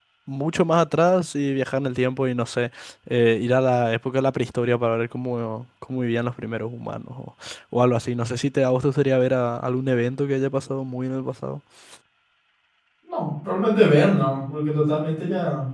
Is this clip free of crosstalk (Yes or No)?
Yes